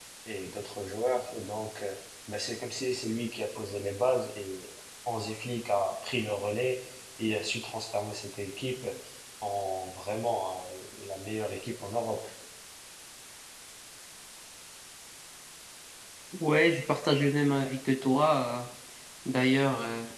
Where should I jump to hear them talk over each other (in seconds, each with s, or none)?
none